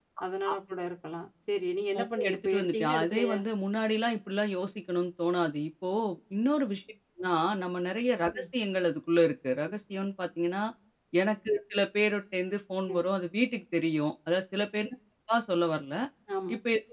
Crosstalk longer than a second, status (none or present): present